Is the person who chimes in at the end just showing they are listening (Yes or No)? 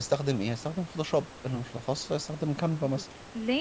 No